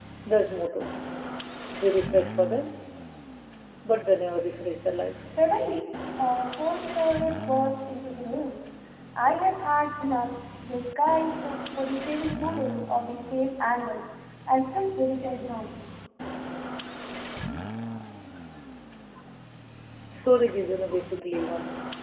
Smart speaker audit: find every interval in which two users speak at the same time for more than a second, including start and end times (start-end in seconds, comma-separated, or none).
none